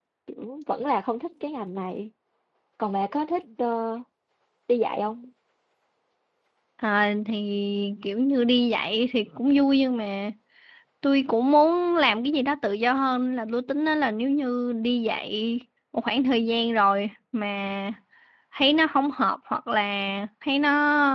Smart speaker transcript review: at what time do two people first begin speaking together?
none

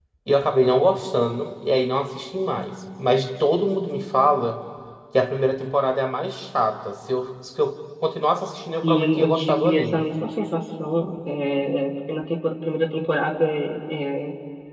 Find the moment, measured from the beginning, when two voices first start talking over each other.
8.8 s

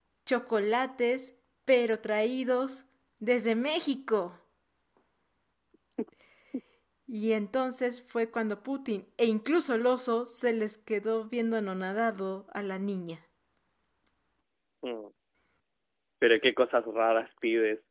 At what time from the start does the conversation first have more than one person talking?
none

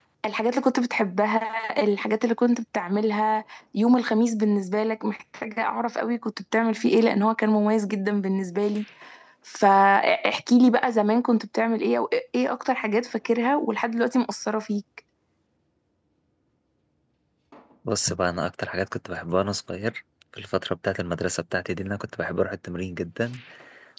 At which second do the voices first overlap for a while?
none

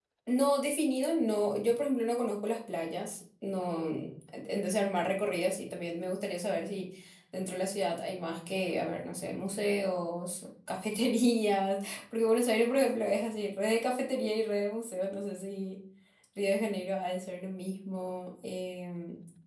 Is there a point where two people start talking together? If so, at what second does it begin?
none

